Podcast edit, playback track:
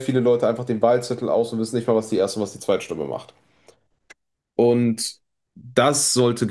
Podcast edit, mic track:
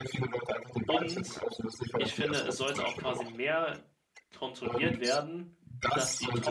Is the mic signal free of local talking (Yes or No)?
No